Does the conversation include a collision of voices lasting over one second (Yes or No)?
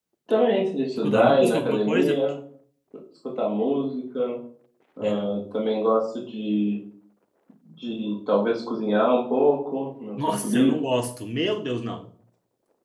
Yes